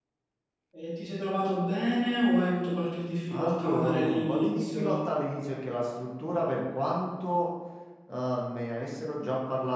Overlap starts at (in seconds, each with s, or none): 3.3 s